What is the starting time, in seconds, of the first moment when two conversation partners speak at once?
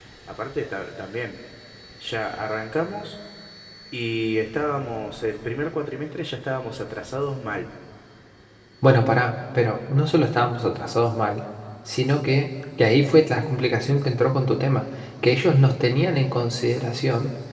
none

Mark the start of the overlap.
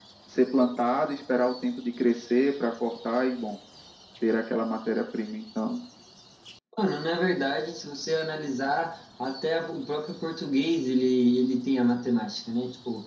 none

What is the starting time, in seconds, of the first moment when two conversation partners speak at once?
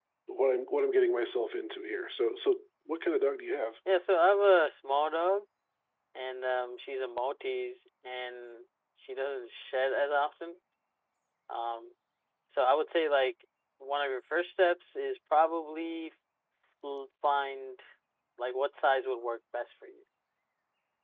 none

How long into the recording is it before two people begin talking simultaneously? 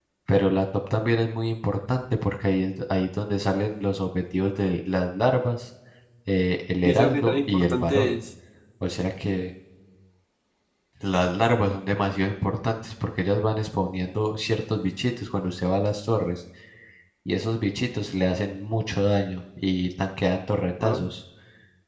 6.8 s

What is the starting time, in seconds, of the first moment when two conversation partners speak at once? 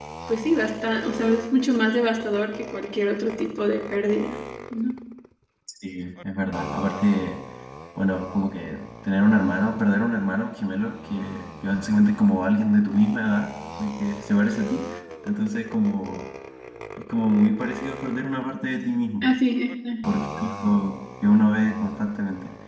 none

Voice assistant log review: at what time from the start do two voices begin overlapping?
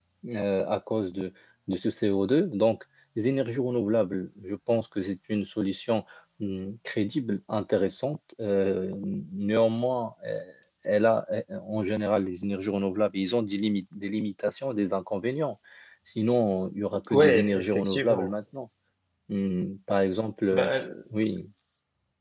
17.1 s

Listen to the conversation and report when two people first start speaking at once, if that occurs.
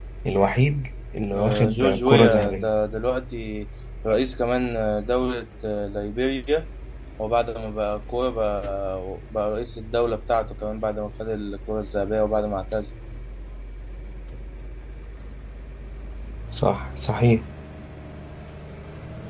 1.3 s

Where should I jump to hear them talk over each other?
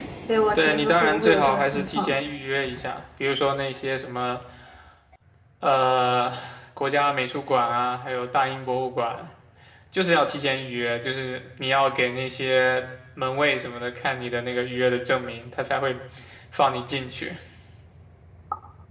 0.6 s

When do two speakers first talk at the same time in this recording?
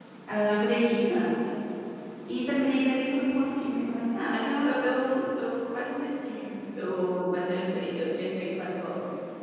none

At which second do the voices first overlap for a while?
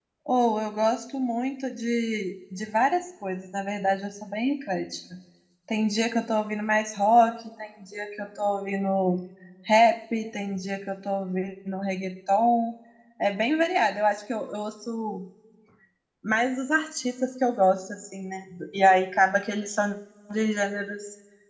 none

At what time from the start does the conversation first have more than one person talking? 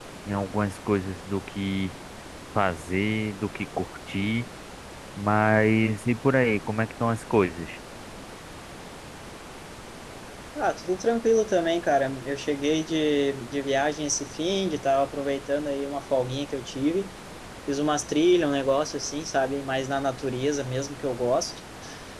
none

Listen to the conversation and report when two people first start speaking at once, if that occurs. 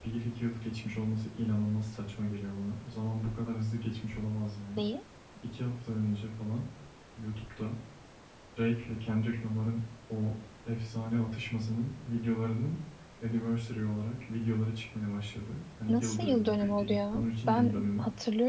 15.9 s

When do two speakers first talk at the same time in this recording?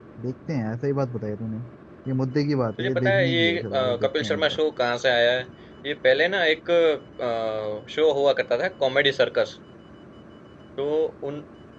2.8 s

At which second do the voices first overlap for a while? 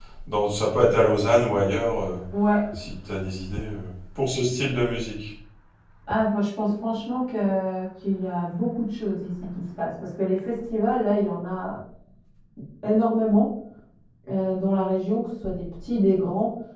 none

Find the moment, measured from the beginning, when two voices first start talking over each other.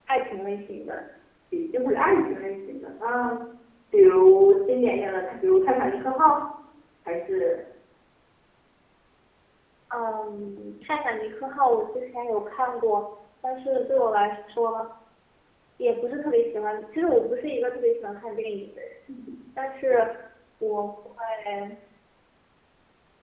none

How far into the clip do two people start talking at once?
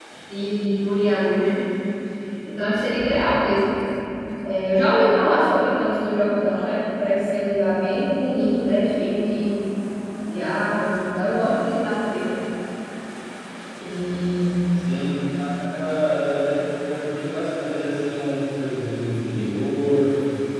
none

